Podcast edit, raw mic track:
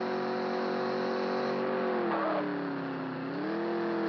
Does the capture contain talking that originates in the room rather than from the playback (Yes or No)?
No